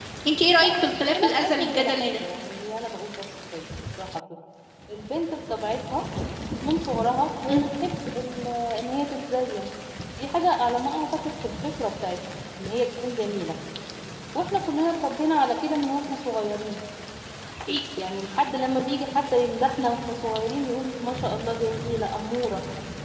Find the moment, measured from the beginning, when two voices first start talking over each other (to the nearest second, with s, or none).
1 s